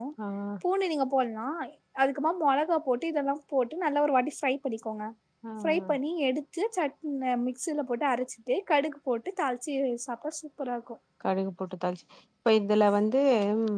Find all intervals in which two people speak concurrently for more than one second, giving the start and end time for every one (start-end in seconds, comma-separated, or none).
none